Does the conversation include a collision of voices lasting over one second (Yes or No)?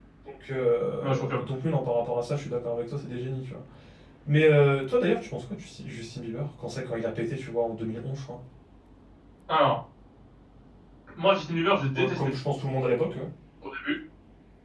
No